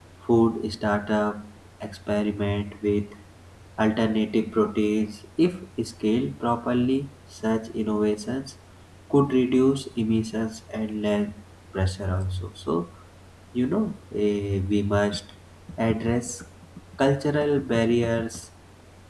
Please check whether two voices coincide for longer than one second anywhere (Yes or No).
No